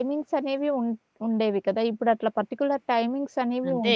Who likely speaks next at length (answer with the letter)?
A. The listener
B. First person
A